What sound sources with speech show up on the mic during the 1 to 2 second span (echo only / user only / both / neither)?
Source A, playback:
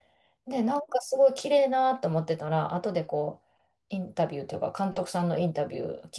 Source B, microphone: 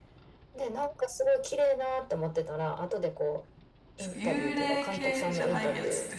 echo only